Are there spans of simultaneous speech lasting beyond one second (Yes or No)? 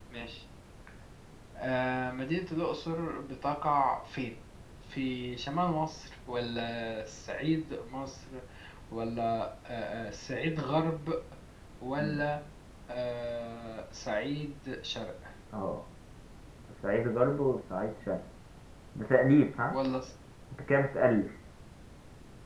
No